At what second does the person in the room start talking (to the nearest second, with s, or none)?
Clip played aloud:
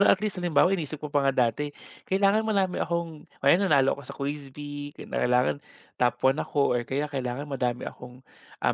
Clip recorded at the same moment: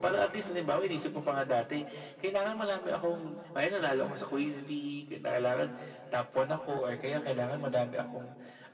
none